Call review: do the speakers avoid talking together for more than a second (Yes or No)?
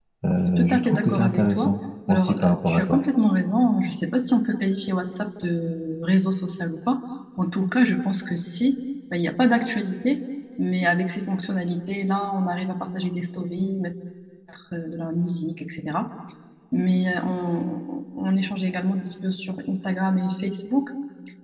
No